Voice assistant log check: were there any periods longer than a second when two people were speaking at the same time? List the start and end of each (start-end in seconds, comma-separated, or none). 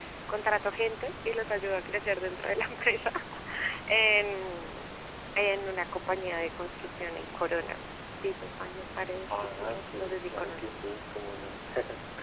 9.3-10.8